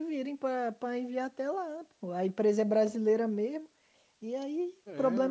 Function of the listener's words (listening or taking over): listening